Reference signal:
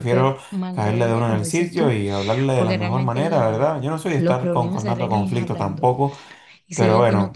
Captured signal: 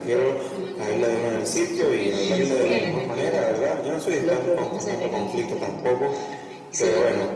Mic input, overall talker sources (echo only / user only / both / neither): both